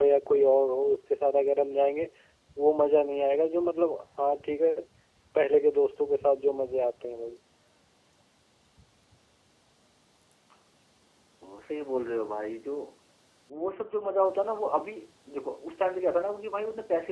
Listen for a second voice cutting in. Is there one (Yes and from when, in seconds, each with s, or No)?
No